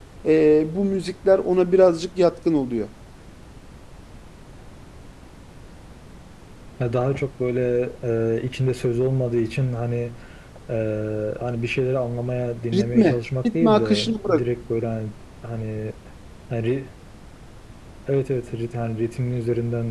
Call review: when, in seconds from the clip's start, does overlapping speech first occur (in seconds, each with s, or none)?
12.7 s